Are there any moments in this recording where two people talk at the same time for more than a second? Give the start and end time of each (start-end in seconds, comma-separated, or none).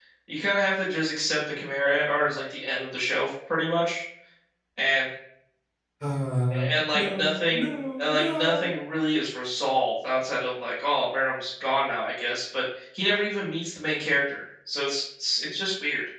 6.7-8.7